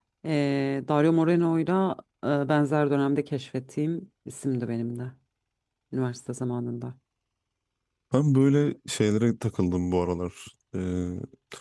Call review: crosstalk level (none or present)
none